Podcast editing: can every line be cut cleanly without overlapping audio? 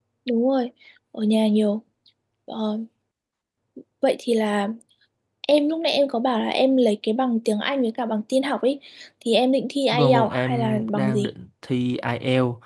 No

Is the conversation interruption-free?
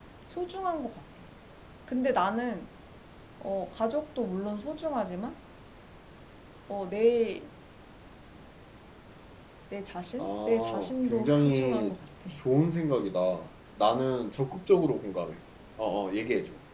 No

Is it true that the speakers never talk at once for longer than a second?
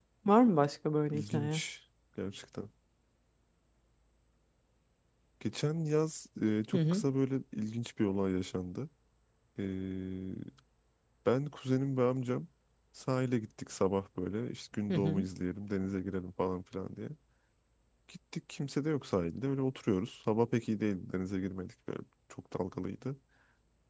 Yes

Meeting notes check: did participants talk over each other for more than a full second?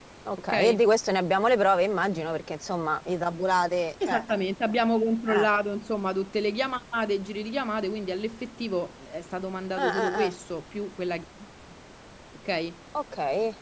No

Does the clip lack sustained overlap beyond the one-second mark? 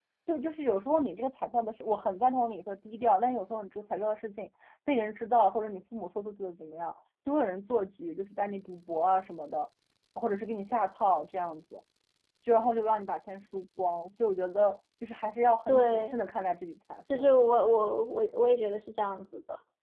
Yes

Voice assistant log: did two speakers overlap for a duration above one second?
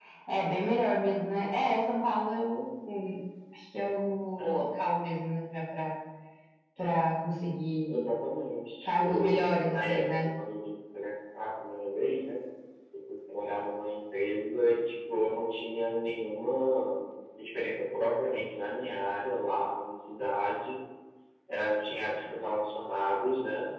Yes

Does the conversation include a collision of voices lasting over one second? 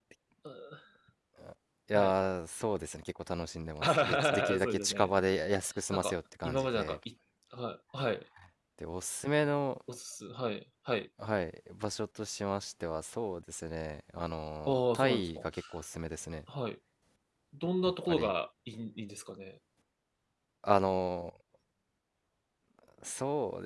Yes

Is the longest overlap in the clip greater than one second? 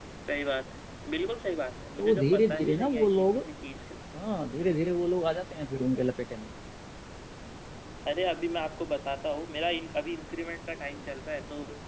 Yes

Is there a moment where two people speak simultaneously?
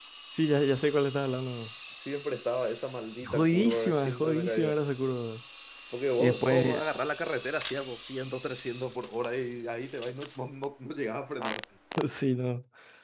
Yes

